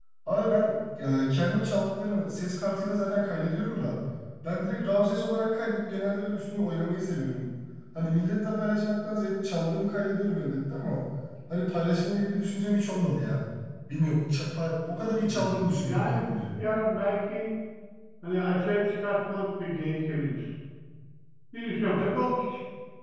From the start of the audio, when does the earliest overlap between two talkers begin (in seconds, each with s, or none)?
15.2 s